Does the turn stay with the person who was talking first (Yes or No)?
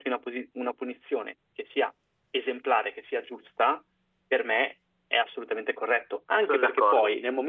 Yes